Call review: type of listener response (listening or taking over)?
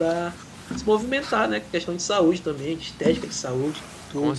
taking over